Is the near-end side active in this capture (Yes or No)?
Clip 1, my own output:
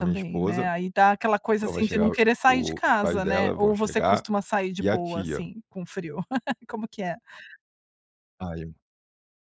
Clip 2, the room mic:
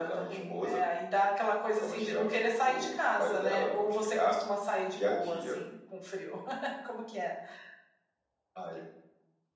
No